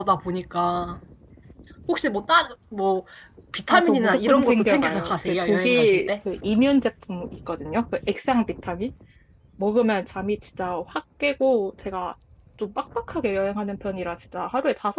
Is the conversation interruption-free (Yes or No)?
No